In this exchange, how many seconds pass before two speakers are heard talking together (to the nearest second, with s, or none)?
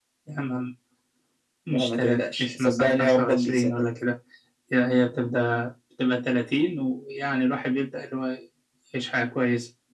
2 s